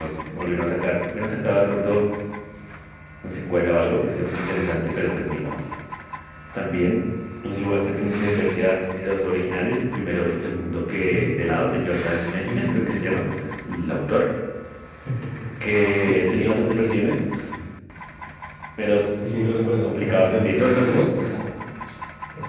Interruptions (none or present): present